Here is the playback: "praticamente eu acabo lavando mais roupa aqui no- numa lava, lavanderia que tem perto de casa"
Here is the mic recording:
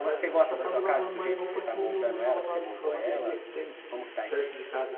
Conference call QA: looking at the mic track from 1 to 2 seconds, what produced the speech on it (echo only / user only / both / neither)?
both